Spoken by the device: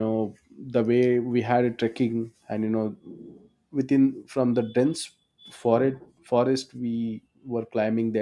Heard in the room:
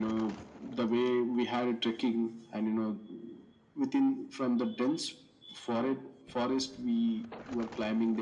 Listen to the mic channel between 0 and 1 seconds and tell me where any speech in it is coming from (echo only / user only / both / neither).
echo only